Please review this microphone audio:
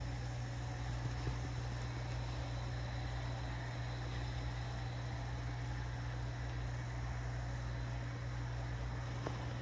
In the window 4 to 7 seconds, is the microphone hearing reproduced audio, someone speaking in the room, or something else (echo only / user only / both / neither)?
neither